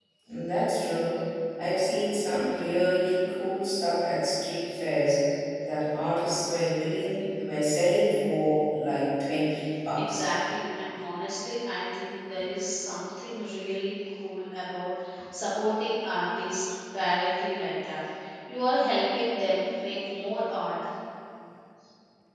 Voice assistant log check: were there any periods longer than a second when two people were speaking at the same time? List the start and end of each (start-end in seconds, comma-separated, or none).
none